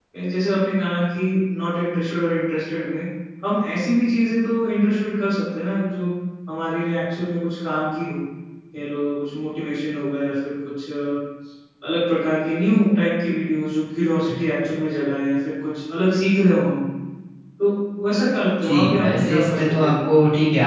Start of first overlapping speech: 18.6 s

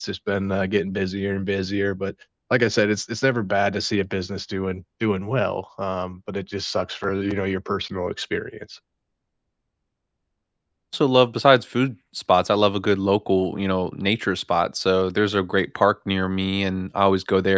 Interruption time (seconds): none

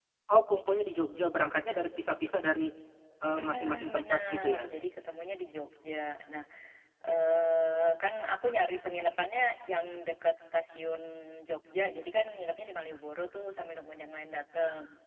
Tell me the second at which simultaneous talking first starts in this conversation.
3.4 s

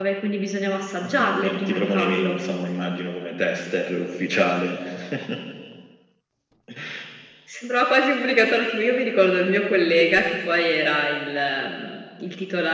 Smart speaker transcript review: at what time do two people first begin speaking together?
1.0 s

